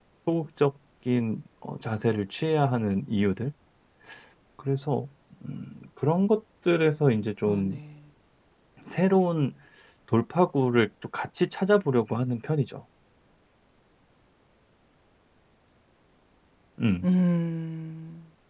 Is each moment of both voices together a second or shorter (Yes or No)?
Yes